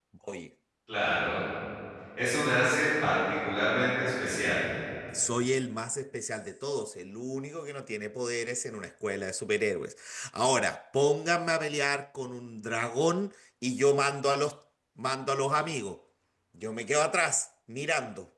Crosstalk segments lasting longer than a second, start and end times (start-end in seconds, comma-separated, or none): none